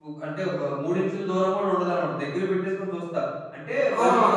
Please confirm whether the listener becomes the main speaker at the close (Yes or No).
Yes